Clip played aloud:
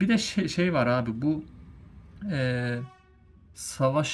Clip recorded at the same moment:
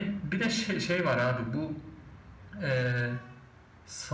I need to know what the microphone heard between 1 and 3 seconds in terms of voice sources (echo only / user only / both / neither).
echo only